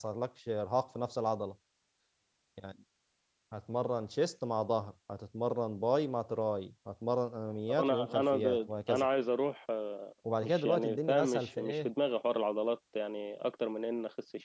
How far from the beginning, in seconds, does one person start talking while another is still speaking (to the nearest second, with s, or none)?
8 s